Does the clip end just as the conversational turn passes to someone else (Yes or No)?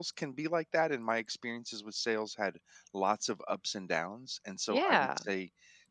No